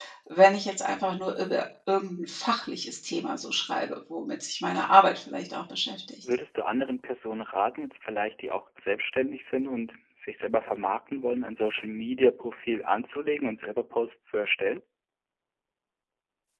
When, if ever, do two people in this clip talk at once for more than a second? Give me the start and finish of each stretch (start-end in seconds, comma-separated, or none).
none